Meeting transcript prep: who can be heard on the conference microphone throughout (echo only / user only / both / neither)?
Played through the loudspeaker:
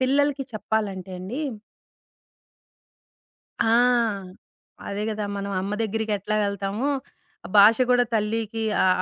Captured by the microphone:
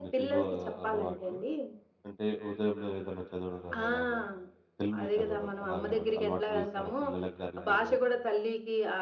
both